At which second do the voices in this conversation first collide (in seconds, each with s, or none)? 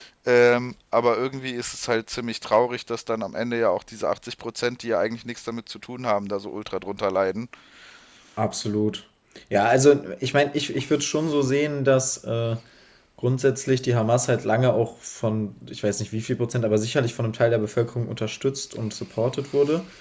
none